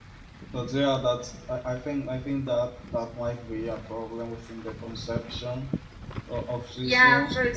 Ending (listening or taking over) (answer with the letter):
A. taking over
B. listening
A